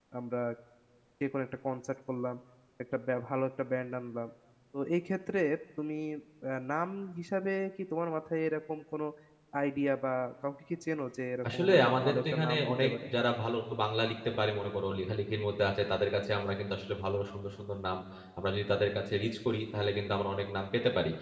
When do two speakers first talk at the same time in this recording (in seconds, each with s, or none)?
11.4 s